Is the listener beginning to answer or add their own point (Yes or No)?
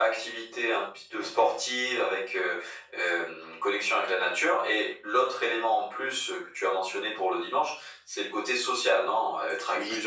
Yes